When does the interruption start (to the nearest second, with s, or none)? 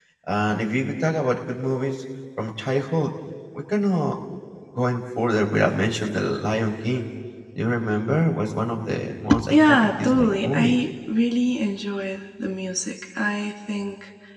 9 s